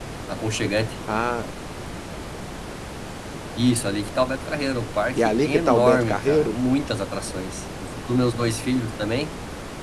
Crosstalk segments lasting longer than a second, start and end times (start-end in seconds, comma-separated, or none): 5.2-6.5